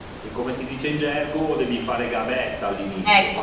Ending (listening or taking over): taking over